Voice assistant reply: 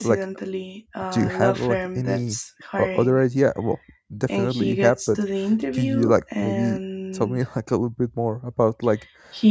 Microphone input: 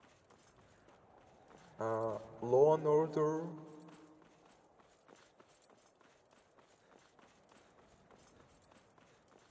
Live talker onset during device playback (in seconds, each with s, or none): 1.8 s